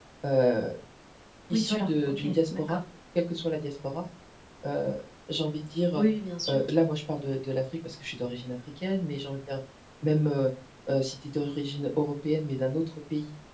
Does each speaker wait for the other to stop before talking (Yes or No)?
No